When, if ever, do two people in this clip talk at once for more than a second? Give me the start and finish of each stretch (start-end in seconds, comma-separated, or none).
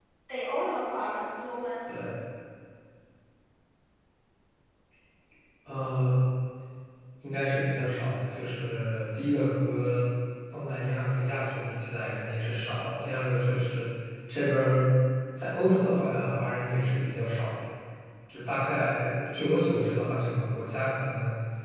none